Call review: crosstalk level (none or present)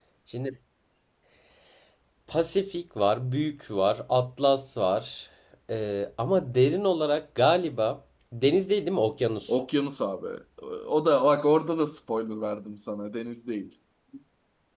none